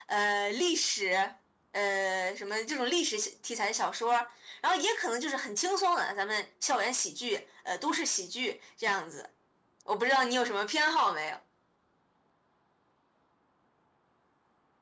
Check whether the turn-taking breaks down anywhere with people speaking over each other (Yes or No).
No